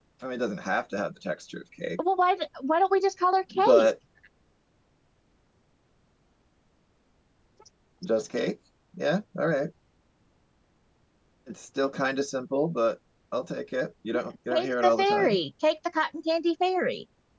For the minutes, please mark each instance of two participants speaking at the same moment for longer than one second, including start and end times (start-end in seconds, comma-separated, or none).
14.1-15.4